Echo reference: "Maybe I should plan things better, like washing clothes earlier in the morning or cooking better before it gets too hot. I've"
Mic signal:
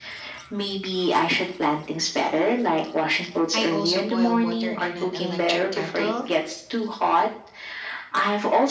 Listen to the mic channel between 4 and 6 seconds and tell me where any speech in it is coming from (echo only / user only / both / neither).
both